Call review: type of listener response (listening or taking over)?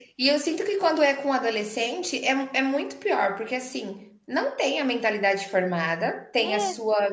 listening